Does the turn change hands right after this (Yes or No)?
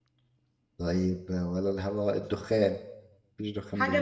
Yes